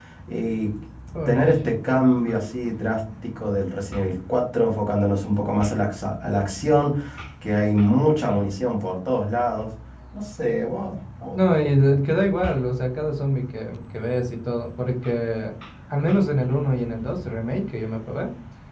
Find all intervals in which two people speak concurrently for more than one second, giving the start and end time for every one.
none

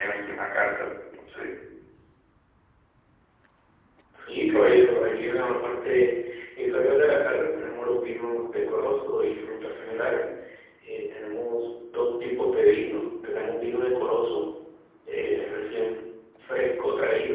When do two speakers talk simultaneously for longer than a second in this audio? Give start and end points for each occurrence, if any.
none

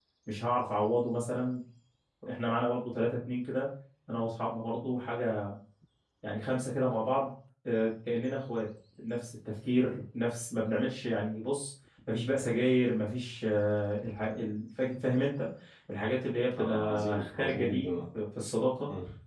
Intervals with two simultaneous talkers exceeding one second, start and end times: 16.6-18.0

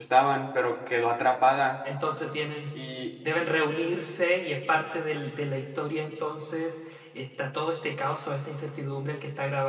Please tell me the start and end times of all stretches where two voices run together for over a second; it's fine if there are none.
none

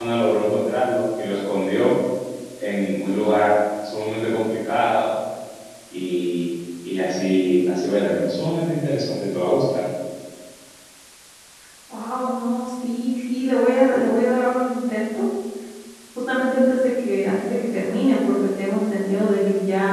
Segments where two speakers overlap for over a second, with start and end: none

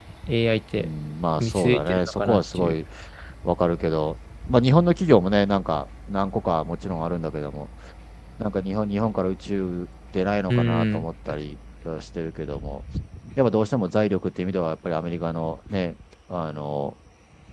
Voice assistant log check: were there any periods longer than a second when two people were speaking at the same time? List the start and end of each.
1.4-2.7

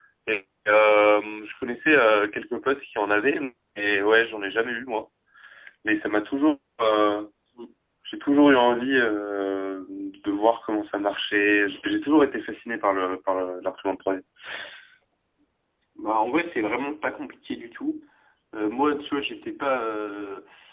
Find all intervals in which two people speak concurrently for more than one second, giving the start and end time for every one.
none

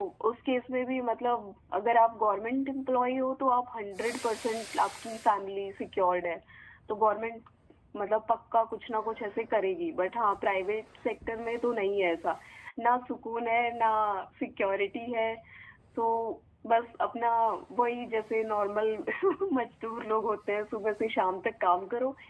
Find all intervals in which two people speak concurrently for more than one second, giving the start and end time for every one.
none

